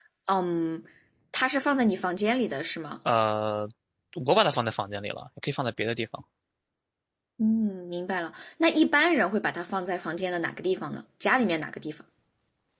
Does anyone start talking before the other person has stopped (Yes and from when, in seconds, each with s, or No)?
No